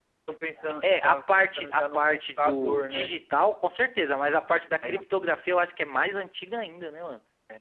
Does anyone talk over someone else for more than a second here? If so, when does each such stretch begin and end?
0.8-3.1

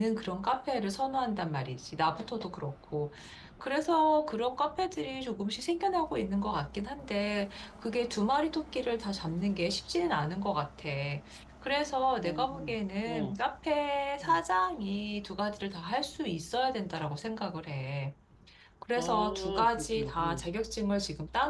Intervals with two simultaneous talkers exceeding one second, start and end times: 19.0-20.4

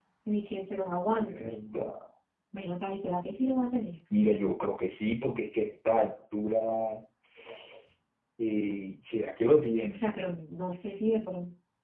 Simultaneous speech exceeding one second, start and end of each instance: none

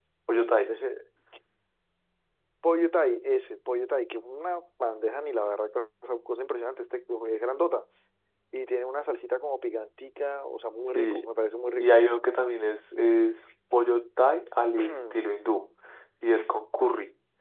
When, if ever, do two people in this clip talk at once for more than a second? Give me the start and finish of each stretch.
none

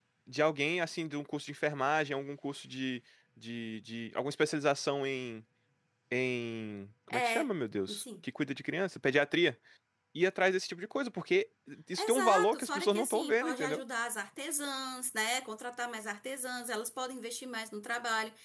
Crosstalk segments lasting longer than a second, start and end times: 12.0-13.8

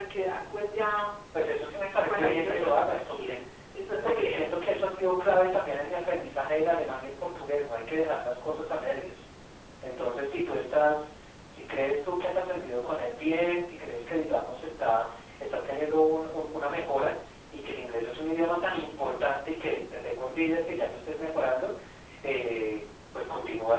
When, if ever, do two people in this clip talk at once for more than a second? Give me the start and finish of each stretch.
2.1-3.4

